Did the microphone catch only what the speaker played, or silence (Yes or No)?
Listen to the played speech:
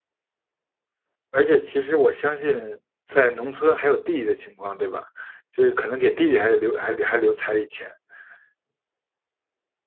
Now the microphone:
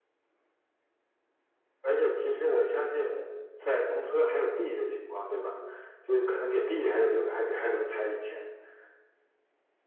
Yes